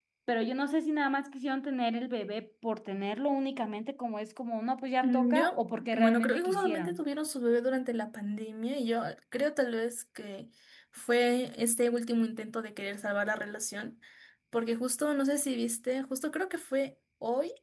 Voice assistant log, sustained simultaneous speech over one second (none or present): present